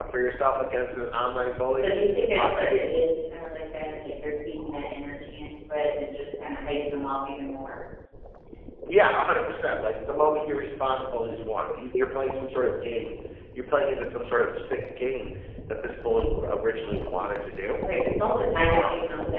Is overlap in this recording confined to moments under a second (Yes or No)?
Yes